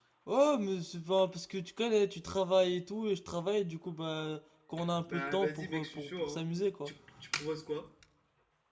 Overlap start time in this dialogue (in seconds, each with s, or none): 5.1 s